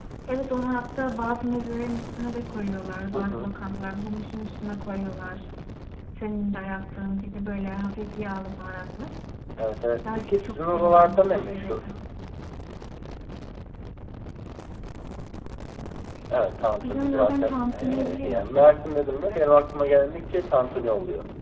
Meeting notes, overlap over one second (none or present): present